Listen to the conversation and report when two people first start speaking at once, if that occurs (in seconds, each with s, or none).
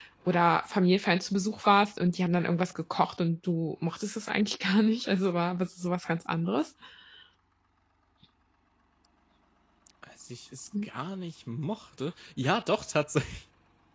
none